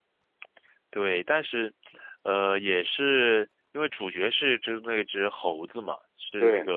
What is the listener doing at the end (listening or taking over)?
listening